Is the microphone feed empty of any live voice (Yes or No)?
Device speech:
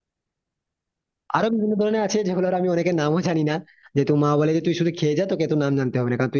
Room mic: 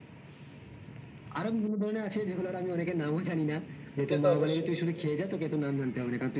No